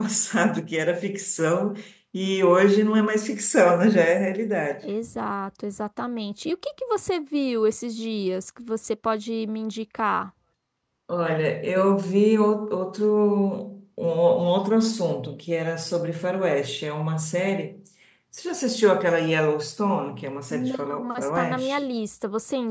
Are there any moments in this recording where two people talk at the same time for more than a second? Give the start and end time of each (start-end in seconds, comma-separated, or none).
20.5-21.8